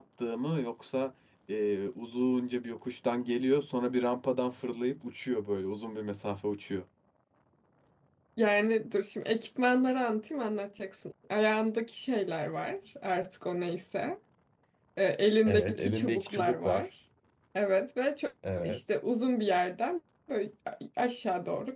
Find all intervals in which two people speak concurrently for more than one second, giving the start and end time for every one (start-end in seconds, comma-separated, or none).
15.5-16.9